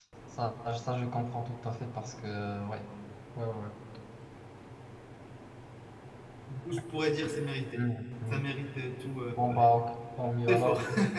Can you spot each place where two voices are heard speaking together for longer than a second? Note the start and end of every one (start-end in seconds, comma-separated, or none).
none